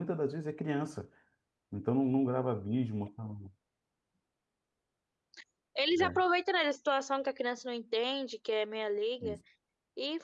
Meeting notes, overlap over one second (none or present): none